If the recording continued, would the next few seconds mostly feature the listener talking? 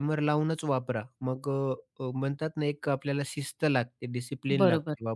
Yes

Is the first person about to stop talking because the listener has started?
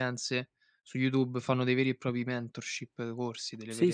Yes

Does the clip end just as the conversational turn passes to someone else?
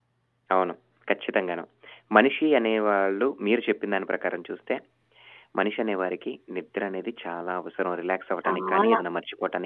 No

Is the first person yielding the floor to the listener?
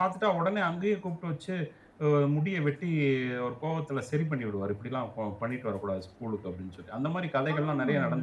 Yes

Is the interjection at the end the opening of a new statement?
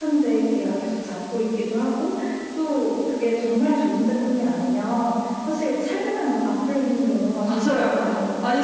Yes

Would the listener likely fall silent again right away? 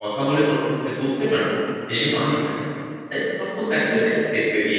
Yes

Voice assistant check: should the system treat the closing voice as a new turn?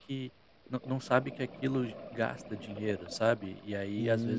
Yes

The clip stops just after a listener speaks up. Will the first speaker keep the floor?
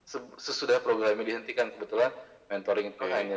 Yes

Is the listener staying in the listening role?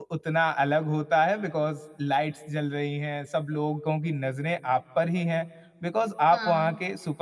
Yes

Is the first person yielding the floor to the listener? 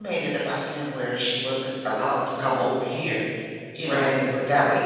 No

